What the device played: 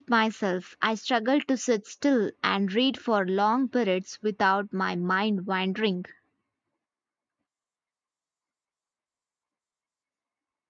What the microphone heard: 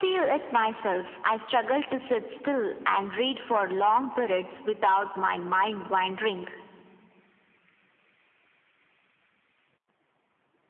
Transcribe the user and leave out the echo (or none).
none